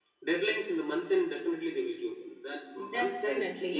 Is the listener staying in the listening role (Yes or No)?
No